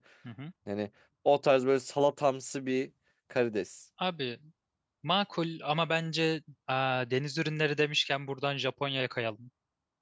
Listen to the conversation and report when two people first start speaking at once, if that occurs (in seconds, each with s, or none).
none